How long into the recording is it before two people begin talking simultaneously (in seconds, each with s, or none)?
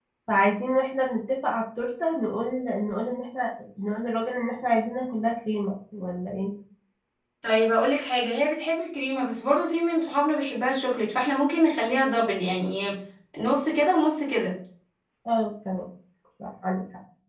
none